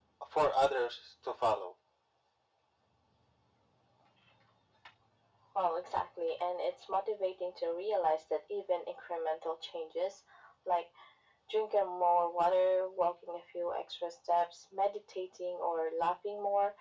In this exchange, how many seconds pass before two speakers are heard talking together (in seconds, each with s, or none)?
none